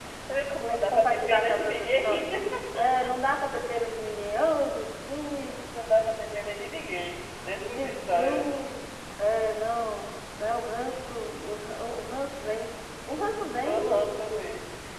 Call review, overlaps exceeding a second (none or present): present